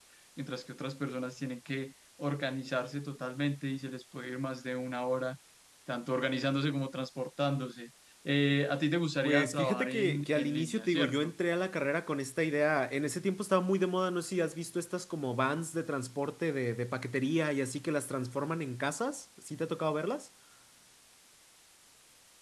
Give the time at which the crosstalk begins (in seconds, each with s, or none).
9.2 s